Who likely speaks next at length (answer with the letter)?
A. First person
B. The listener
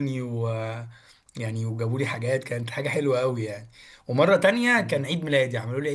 A